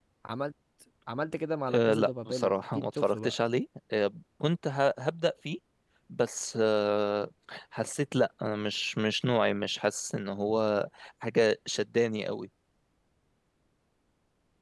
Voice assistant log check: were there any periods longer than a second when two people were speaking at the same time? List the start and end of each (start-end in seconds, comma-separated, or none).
1.7-3.4